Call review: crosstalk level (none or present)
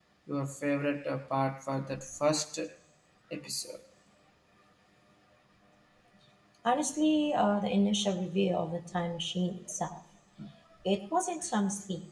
none